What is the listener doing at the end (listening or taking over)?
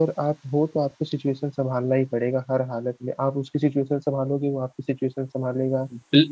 taking over